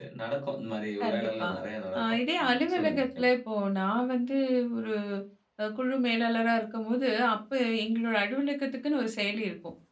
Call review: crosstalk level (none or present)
present